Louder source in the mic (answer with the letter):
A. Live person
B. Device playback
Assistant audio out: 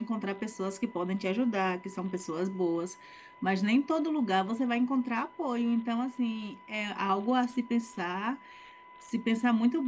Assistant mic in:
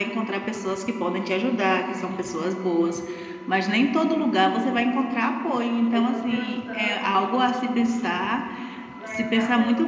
B